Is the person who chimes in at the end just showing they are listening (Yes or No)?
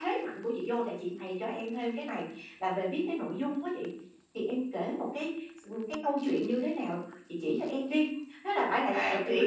No